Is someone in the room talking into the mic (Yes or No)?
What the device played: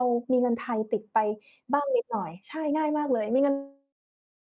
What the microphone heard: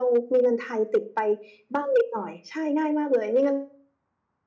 No